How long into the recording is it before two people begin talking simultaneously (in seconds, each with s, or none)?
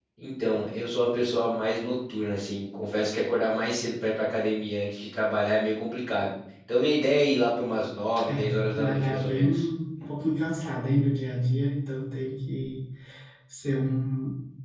8.3 s